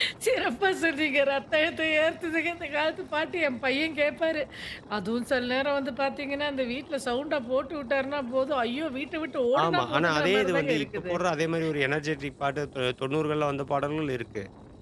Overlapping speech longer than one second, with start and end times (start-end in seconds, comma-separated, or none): 9.6-11.1